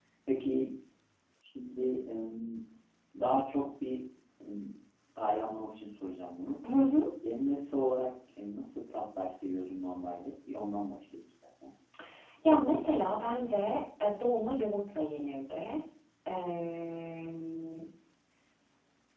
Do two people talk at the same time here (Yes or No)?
No